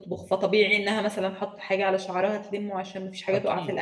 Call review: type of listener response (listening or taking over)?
listening